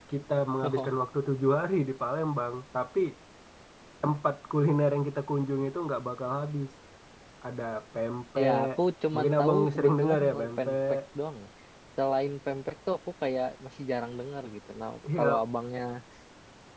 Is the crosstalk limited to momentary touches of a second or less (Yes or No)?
No